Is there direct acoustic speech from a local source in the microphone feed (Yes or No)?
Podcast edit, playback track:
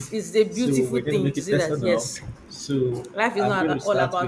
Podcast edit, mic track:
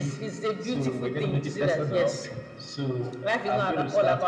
No